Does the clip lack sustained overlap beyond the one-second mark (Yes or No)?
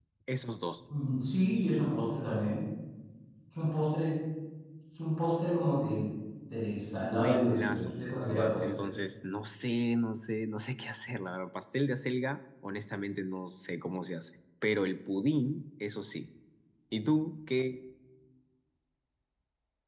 No